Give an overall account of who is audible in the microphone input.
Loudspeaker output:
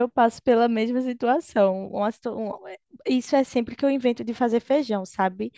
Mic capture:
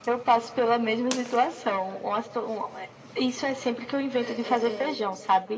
both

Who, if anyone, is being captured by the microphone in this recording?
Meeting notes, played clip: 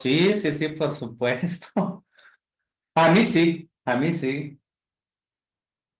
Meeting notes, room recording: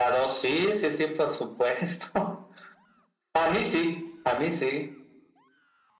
echo only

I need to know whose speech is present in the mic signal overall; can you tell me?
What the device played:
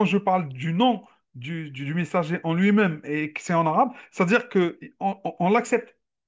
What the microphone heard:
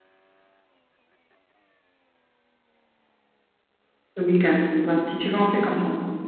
user only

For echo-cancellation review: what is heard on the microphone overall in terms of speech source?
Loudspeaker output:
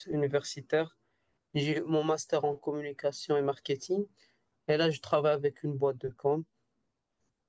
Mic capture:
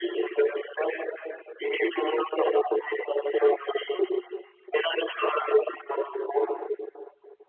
echo only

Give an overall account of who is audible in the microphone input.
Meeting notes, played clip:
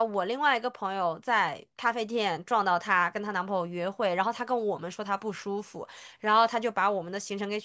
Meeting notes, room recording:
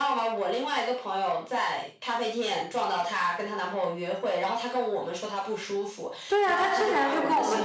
both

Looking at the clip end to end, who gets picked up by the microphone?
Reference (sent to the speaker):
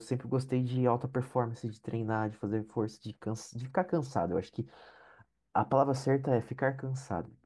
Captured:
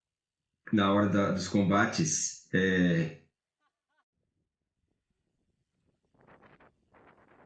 user only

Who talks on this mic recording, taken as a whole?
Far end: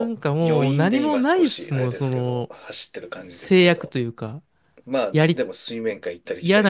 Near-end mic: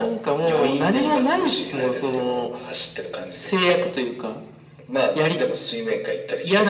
echo only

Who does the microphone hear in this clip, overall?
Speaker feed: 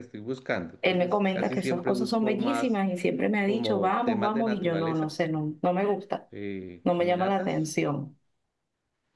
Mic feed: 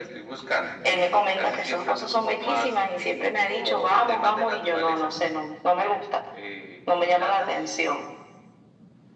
echo only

